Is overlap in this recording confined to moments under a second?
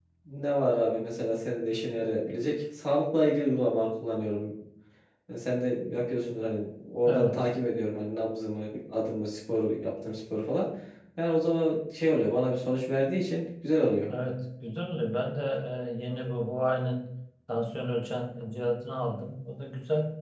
Yes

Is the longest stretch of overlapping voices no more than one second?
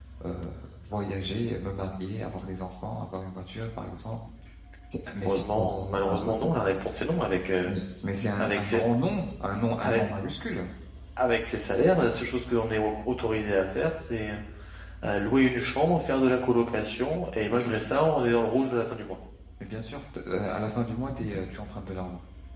No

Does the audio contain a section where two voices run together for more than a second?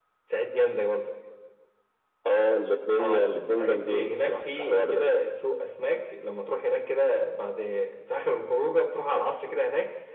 Yes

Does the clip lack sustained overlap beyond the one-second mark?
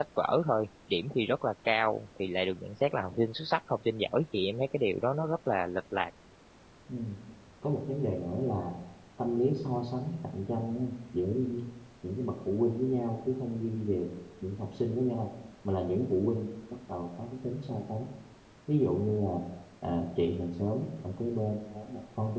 Yes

